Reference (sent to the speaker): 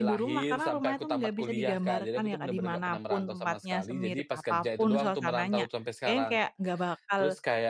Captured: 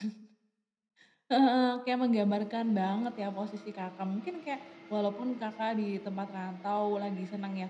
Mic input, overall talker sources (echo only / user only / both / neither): user only